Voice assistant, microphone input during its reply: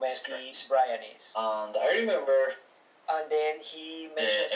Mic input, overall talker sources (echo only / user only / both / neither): echo only